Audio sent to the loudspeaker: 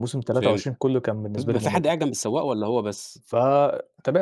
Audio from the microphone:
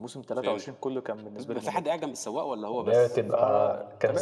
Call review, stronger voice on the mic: user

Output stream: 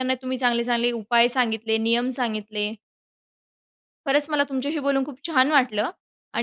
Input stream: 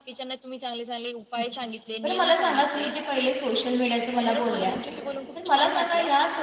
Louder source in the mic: user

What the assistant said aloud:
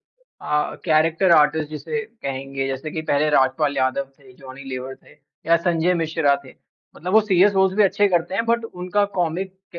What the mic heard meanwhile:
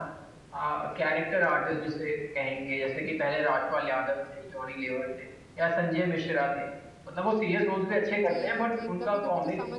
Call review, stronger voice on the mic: echo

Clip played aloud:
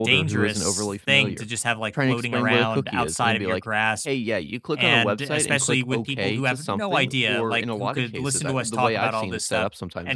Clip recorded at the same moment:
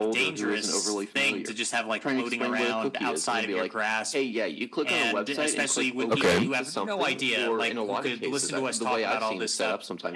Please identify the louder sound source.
user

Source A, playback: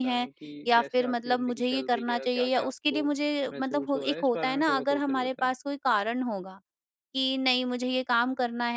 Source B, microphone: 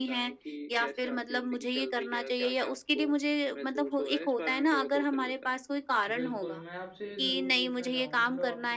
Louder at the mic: echo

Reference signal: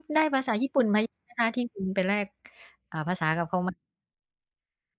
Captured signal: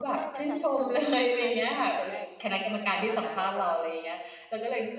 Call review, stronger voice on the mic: user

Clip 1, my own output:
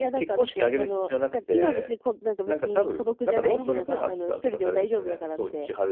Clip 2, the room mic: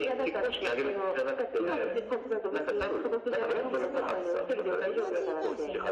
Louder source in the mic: echo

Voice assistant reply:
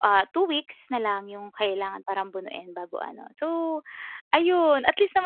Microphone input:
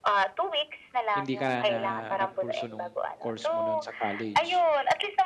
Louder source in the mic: echo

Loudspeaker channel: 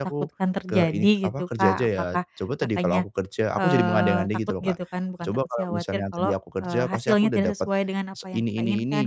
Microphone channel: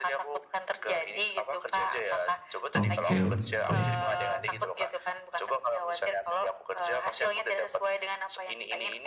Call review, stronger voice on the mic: user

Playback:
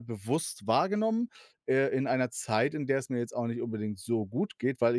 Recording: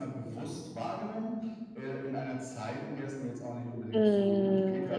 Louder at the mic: user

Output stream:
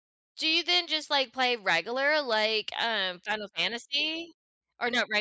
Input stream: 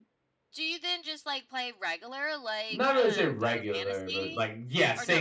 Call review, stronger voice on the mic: user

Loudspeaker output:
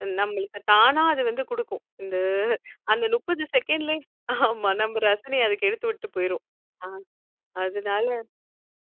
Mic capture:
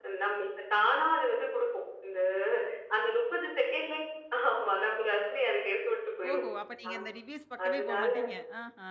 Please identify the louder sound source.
echo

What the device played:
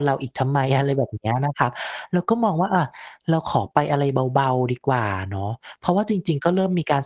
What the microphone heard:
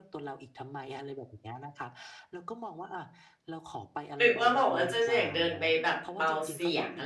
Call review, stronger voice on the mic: user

